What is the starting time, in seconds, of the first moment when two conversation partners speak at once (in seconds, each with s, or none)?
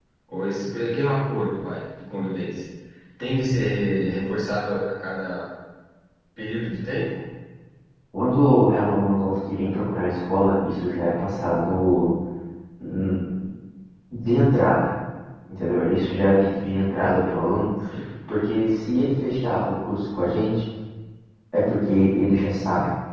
none